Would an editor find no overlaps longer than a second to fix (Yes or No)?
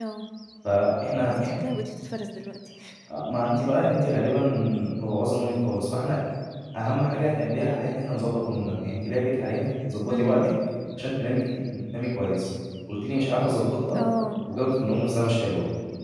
Yes